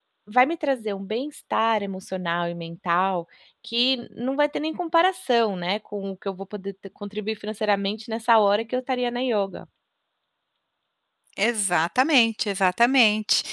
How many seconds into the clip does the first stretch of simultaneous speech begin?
none

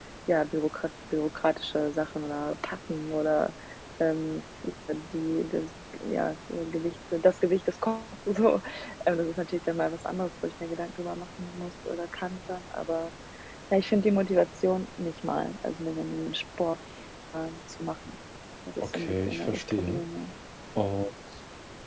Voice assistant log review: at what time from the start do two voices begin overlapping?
19 s

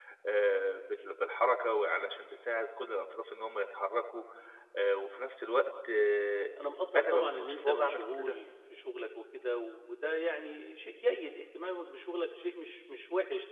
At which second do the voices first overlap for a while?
7 s

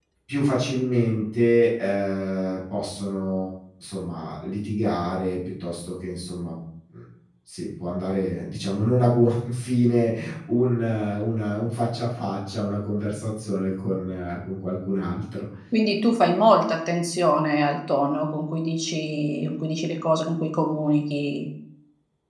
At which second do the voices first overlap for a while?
none

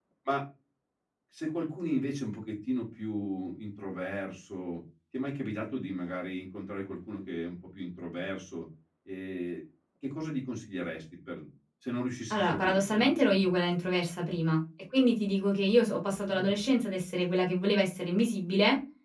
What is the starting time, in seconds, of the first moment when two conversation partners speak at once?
12 s

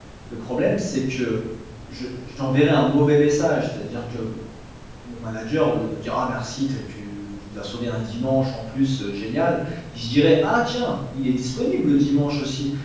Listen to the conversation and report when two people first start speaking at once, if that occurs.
none

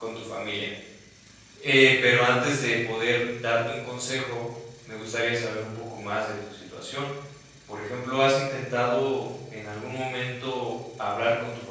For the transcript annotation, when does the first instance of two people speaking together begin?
none

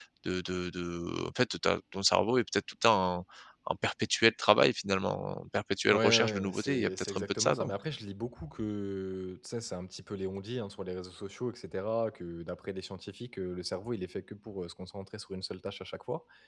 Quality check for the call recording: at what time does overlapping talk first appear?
6 s

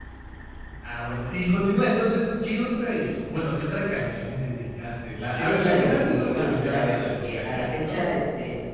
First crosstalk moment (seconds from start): 5 s

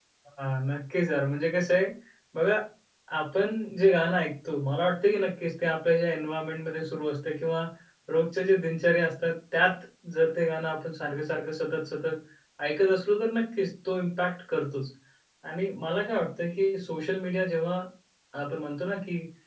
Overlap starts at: none

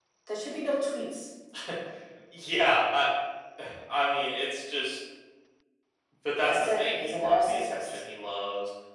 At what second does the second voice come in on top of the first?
6 s

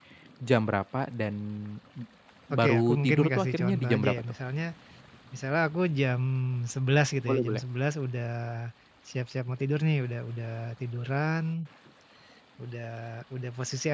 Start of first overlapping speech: 3 s

